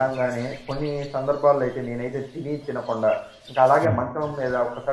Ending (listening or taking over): listening